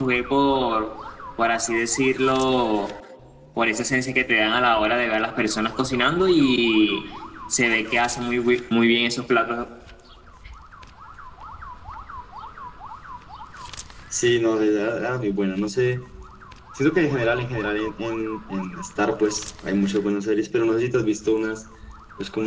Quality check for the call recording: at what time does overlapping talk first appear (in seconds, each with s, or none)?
none